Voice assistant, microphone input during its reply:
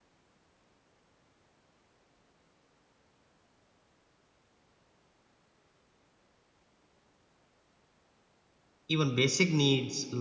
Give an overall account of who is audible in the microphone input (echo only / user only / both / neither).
user only